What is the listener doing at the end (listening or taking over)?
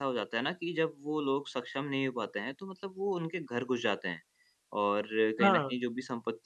listening